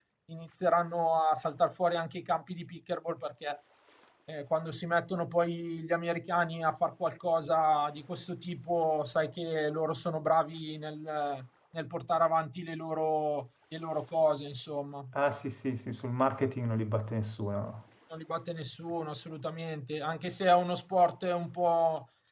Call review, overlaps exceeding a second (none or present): none